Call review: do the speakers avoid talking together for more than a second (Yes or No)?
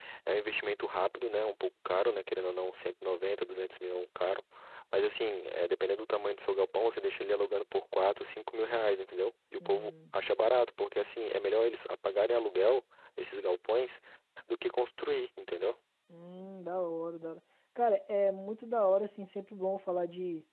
Yes